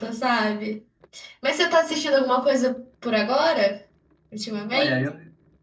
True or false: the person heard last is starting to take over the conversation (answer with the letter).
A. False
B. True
B